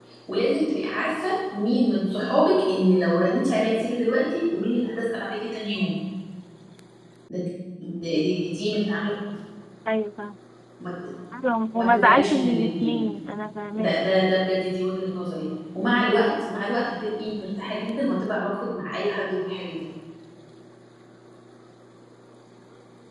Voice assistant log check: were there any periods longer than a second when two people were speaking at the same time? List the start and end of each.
11.7-13.0

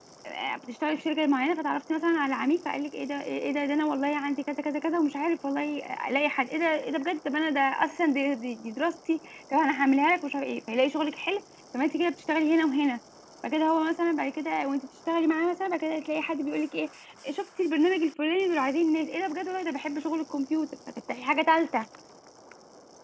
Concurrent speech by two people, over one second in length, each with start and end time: none

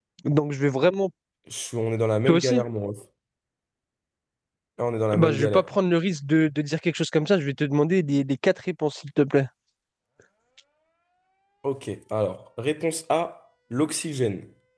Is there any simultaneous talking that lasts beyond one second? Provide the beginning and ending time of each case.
none

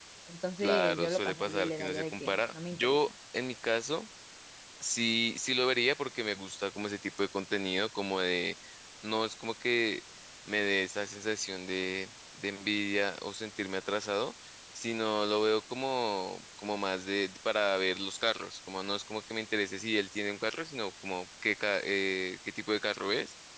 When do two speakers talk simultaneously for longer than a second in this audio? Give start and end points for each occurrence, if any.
0.6-3.0

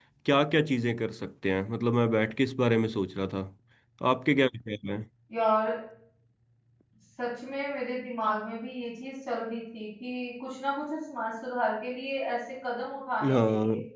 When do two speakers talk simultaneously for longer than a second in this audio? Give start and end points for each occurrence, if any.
none

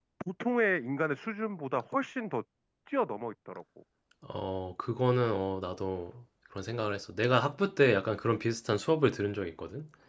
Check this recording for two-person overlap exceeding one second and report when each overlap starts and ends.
none

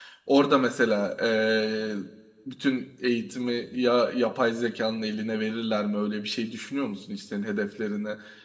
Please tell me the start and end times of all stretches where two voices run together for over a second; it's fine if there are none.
none

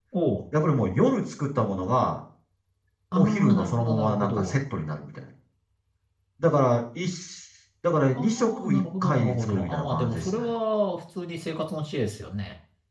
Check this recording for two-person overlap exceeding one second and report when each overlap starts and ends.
3.1-4.6, 8.2-10.4

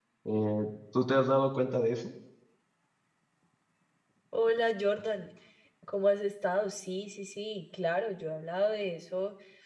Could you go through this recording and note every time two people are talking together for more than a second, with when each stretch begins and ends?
none

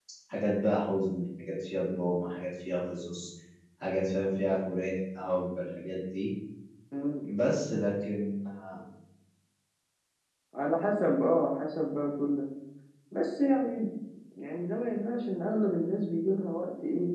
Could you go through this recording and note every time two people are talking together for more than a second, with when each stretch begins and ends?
none

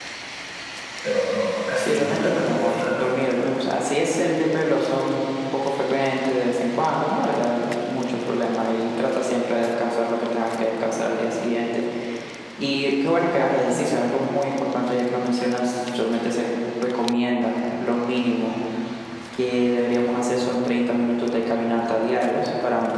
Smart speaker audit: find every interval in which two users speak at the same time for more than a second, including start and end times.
1.8-3.0

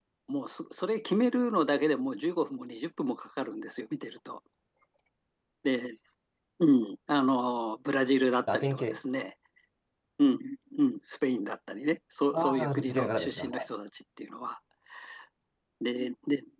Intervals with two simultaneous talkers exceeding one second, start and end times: 12.3-13.7

